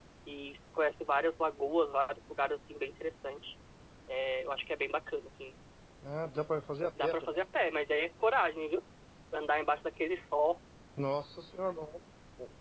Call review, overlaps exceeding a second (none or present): none